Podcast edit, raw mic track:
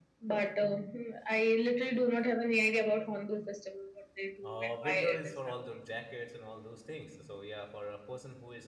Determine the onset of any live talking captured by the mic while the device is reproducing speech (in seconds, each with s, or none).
4.4 s